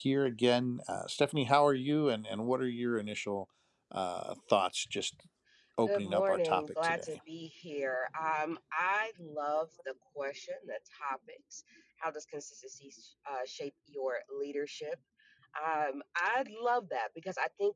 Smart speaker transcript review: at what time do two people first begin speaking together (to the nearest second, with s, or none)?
6 s